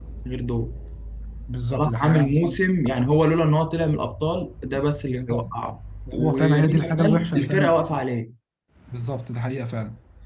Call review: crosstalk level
present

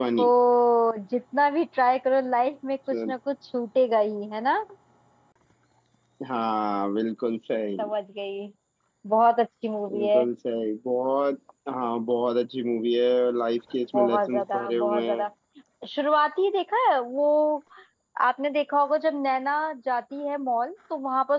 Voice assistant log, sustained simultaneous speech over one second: present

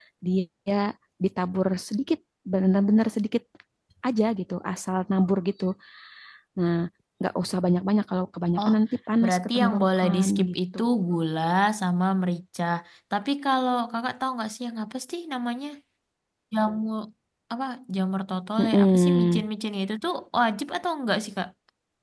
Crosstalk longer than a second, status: present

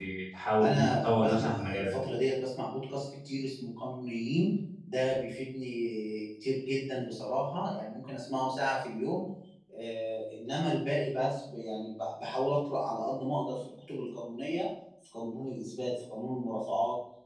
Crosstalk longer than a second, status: present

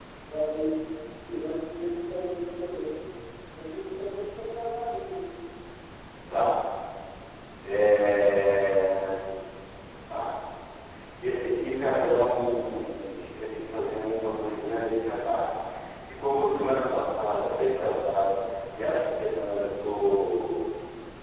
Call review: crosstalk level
none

